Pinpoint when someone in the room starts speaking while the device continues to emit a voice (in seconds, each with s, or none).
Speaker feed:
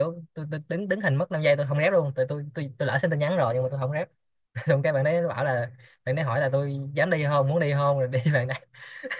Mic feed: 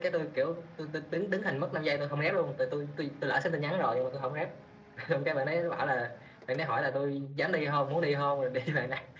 none